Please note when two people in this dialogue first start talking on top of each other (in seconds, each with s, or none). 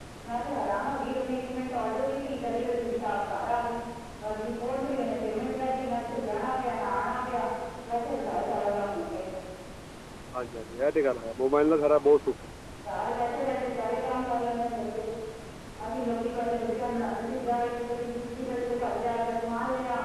none